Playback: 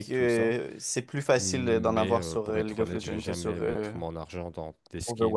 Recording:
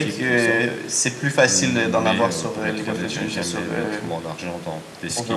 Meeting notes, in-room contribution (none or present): none